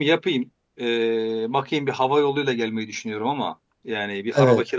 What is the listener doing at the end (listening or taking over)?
listening